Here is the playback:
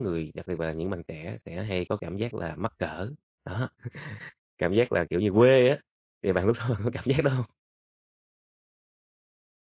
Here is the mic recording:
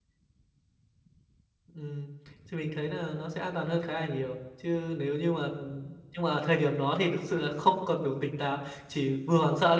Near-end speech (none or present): present